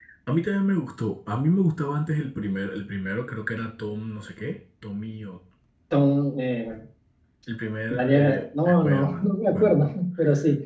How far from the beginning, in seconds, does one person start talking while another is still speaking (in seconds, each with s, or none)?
7.9 s